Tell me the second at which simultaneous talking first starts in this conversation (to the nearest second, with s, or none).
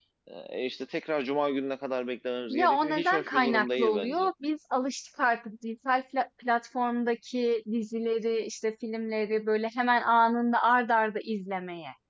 2 s